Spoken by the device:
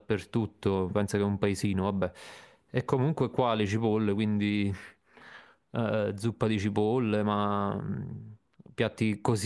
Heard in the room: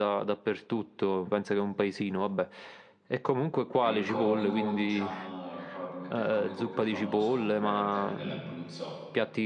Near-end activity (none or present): present